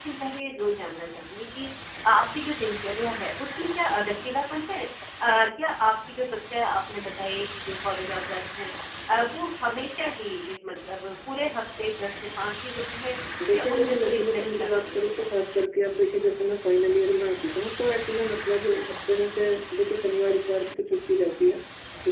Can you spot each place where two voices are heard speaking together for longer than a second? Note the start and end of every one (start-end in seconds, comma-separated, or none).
13.5-15.4